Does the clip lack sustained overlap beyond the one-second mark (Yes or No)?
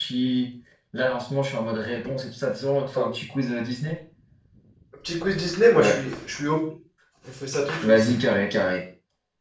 Yes